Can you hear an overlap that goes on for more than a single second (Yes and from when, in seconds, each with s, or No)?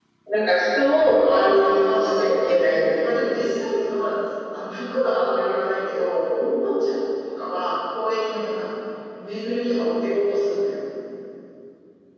Yes, from 1.2 s